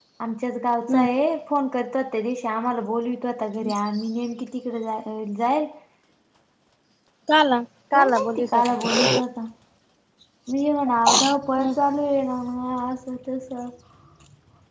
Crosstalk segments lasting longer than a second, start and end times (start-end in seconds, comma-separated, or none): 7.9-9.2